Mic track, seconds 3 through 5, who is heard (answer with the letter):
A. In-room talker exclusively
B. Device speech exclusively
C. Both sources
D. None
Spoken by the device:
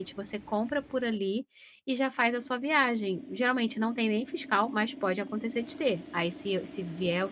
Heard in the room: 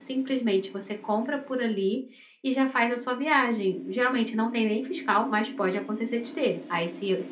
B